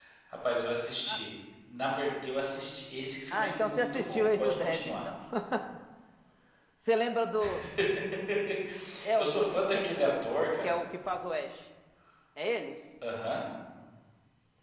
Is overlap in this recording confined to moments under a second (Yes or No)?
No